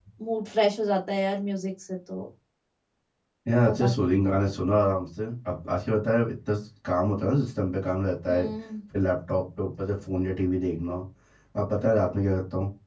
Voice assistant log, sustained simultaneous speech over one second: none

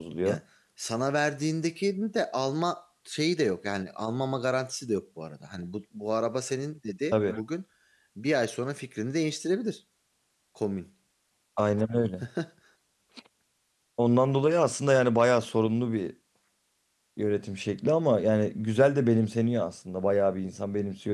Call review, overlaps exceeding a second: none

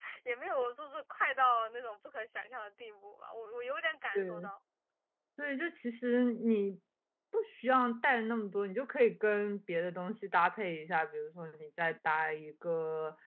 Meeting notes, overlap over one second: none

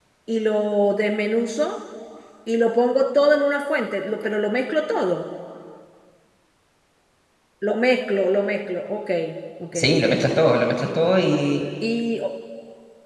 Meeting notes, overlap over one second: none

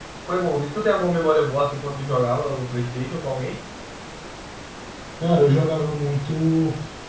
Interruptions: none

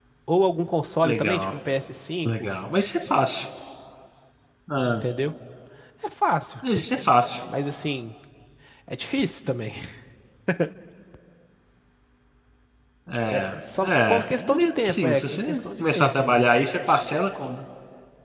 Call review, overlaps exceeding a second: present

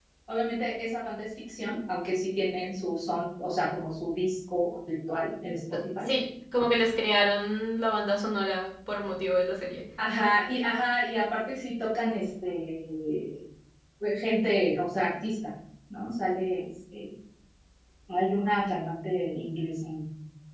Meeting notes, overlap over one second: none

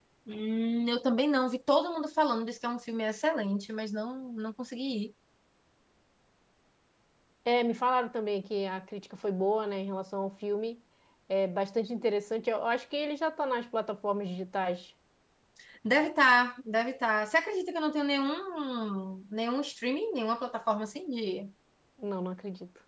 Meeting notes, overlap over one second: none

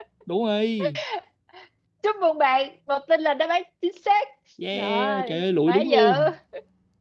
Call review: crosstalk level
present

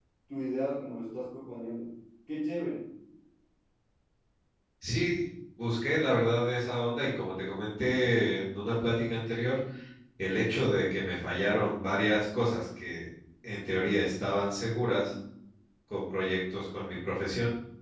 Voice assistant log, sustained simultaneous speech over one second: none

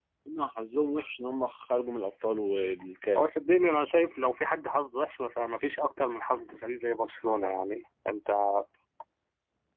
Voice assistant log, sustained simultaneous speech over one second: none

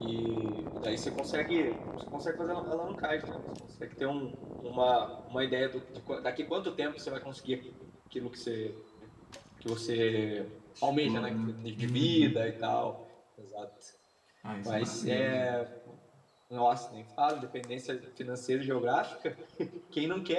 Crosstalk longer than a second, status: present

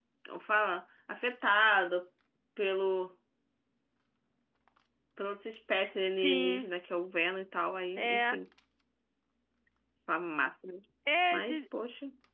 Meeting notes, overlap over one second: none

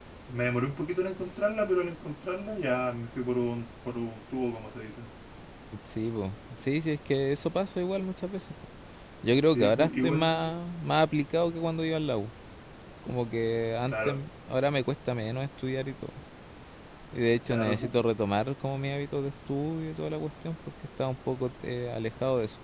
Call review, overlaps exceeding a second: present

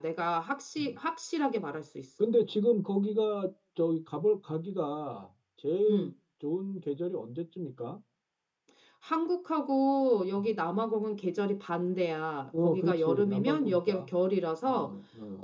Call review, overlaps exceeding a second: present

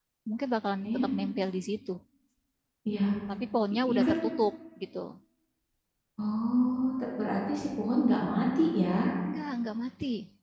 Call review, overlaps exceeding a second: none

